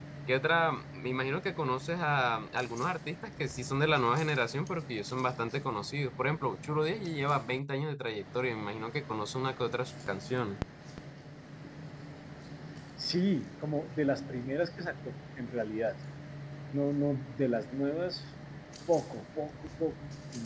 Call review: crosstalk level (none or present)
none